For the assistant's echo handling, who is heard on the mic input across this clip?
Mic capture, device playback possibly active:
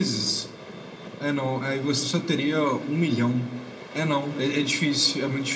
echo only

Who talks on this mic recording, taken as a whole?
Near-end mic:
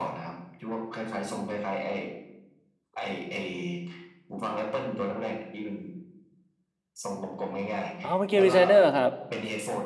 both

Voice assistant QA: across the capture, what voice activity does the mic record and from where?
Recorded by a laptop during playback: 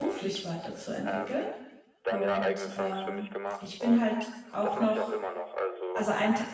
both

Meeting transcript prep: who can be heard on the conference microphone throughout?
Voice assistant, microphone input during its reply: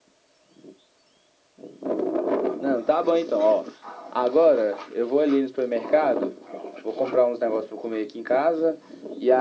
echo only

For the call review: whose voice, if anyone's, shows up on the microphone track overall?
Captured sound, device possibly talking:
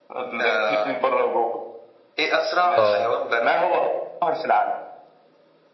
both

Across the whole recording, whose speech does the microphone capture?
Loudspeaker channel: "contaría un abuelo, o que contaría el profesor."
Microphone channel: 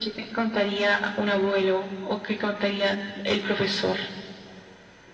echo only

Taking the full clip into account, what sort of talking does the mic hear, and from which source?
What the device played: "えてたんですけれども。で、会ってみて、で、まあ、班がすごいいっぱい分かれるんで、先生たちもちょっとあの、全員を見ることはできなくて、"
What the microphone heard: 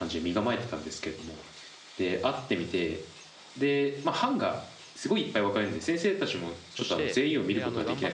both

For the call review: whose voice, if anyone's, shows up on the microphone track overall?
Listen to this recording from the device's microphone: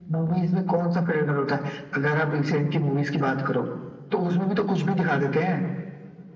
echo only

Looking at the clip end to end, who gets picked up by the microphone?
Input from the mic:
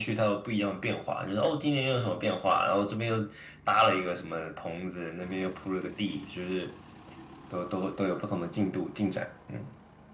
echo only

